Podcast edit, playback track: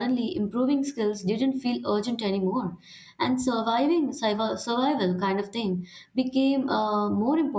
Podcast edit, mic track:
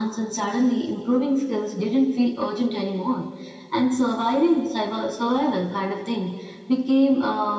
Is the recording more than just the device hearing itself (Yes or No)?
No